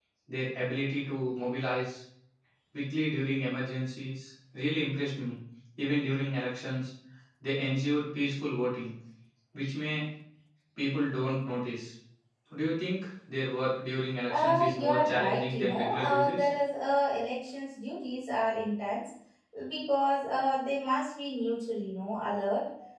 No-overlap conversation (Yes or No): No